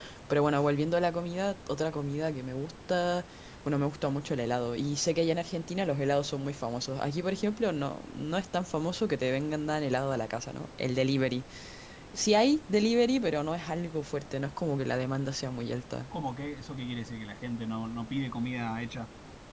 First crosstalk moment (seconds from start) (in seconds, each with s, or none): none